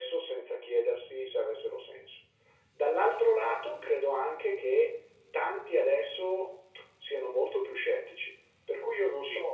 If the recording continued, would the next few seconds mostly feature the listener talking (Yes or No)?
No